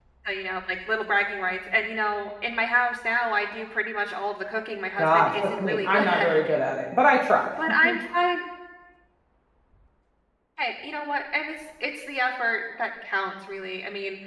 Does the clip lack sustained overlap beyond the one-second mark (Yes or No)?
No